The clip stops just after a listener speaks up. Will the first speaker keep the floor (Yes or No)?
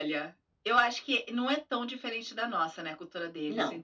Yes